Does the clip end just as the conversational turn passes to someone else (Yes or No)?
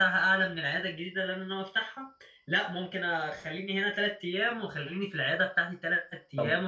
Yes